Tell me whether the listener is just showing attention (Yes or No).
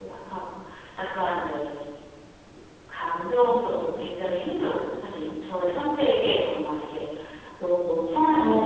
No